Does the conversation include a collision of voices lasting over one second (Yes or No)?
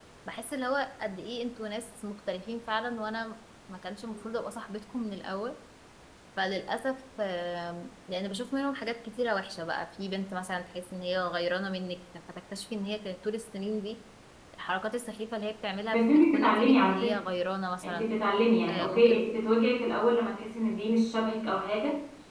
Yes